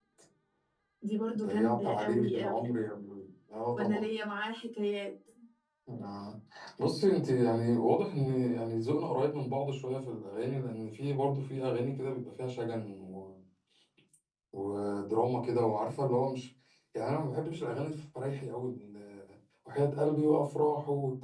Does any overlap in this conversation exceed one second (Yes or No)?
Yes